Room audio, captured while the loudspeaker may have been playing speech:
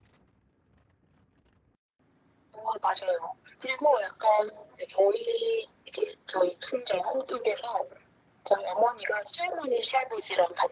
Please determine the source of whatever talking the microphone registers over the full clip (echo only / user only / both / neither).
echo only